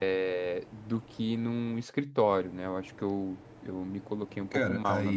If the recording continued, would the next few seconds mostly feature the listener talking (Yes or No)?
Yes